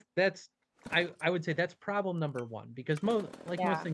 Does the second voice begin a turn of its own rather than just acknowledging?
No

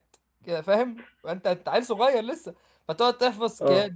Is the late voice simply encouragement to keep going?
Yes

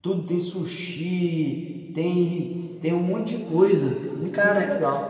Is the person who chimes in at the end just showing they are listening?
No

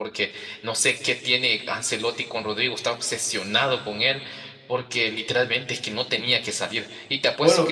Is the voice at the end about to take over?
No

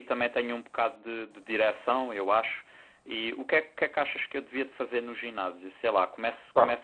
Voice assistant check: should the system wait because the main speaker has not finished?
Yes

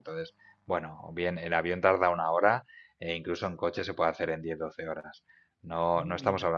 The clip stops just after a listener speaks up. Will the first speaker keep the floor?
Yes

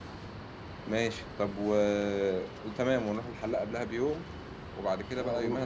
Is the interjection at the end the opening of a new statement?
No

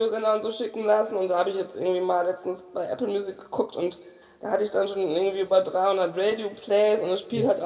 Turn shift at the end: No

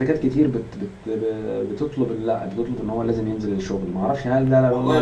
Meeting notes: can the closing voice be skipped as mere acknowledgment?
No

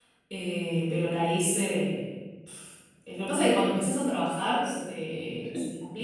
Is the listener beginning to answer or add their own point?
No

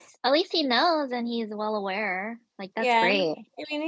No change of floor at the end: No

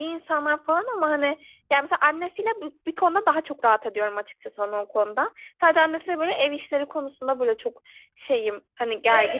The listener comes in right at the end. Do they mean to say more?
Yes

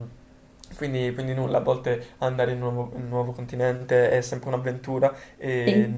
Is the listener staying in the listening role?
Yes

